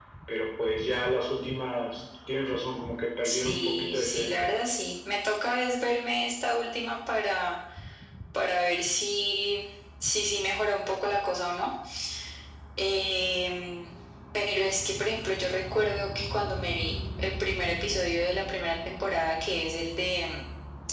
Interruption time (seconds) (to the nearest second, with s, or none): 3 s